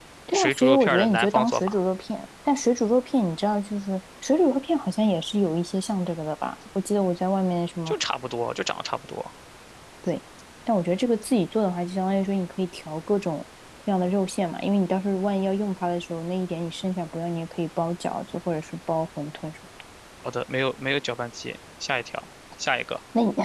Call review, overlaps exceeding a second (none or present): present